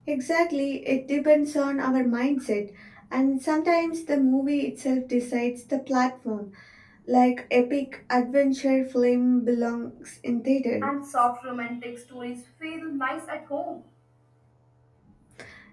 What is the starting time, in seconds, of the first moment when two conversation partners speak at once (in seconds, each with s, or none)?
none